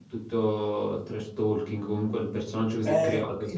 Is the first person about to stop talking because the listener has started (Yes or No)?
Yes